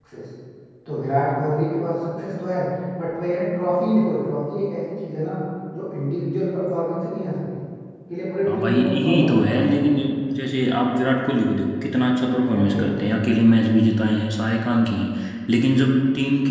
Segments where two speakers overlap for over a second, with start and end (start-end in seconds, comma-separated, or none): 8.5-9.9